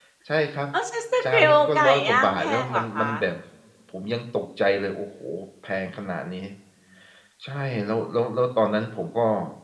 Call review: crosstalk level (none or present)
present